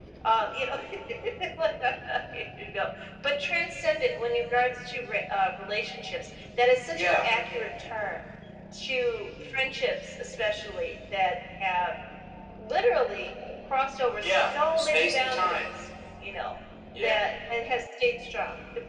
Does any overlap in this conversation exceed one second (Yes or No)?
Yes